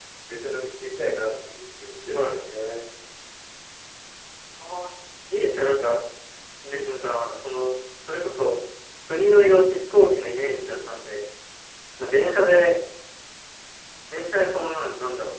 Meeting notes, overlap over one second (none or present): none